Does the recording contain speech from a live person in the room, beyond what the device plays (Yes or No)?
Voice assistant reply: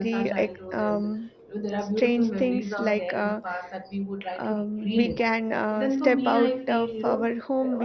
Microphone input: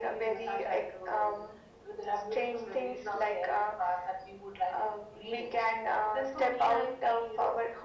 No